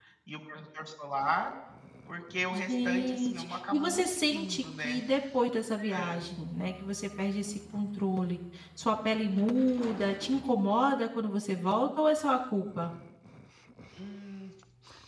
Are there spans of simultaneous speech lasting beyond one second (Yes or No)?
Yes